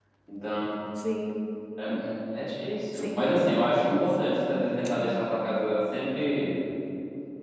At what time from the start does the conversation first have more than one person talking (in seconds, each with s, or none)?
2.9 s